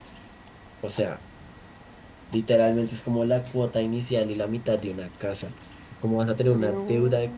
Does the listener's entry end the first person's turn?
No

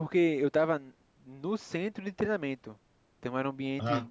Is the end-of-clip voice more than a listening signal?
No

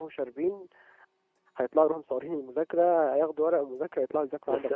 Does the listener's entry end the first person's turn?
Yes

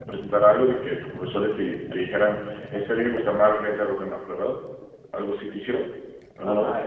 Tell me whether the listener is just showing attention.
No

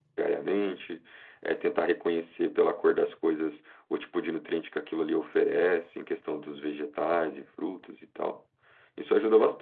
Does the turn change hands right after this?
No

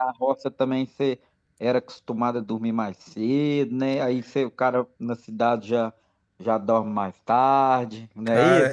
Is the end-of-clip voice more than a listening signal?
Yes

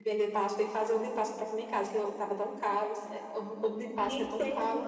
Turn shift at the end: Yes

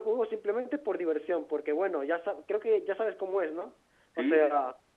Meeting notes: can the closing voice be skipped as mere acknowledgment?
Yes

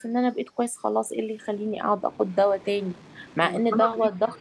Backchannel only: Yes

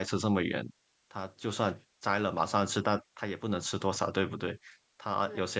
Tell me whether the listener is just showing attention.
Yes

